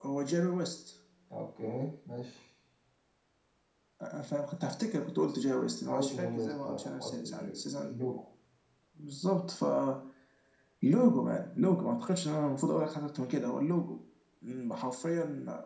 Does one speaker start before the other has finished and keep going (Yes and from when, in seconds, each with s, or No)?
Yes, from 5.9 s